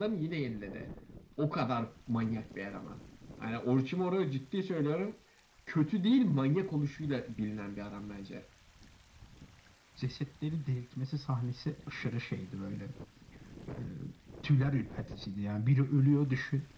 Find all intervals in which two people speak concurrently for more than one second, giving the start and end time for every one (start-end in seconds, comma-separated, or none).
none